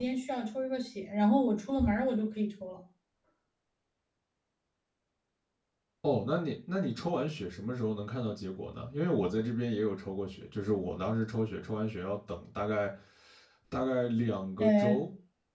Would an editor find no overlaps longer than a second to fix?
Yes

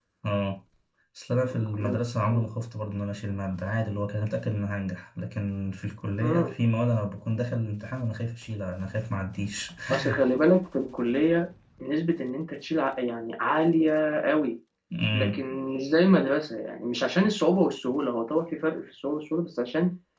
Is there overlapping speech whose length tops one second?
No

